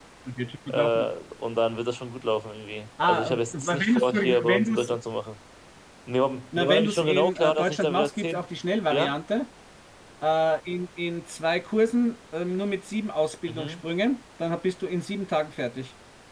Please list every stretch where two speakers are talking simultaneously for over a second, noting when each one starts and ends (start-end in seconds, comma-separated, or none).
3.0-5.0, 6.6-8.4